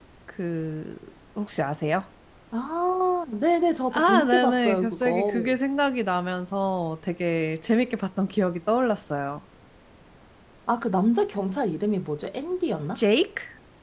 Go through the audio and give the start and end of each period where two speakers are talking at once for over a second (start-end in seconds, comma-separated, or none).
3.9-5.5